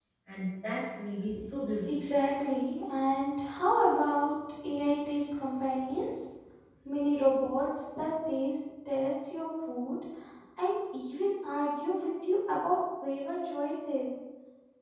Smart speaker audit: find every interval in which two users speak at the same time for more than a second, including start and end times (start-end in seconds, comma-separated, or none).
none